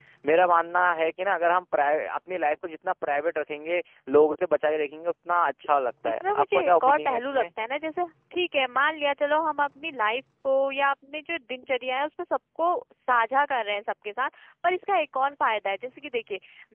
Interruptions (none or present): present